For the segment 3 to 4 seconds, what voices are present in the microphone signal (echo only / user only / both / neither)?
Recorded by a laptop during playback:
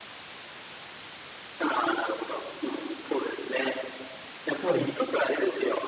echo only